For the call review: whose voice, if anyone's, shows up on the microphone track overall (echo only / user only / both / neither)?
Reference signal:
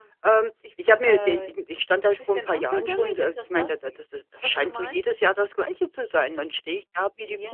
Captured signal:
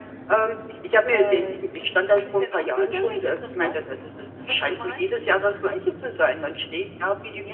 echo only